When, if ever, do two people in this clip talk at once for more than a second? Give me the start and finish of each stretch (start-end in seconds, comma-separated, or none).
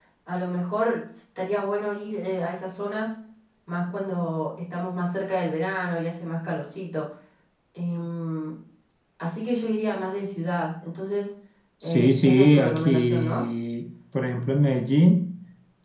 11.8-13.4